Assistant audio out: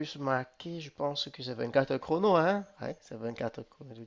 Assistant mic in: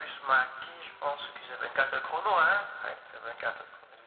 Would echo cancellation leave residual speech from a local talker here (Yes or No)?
No